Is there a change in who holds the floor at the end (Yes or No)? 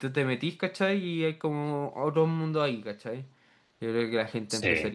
No